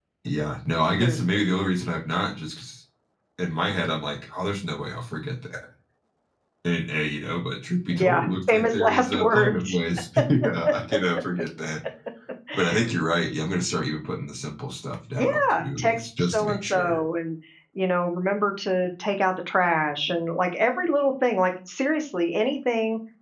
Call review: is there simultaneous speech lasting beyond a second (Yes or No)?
Yes